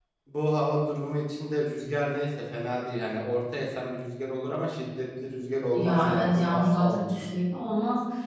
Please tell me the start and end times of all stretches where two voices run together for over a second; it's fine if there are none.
5.7-7.2

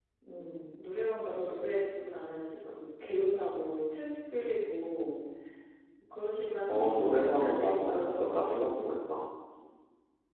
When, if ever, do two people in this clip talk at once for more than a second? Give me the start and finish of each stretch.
6.7-8.6

